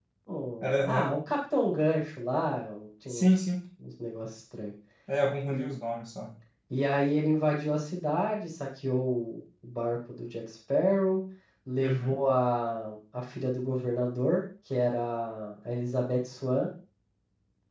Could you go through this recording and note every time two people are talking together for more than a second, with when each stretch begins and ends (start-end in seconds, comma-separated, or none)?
none